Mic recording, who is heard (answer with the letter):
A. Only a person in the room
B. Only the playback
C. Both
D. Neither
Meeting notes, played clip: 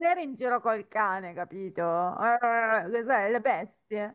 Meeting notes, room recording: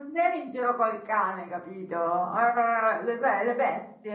B